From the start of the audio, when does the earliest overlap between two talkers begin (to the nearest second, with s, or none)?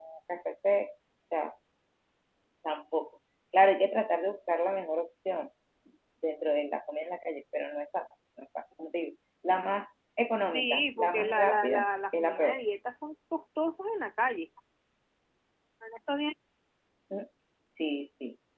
11 s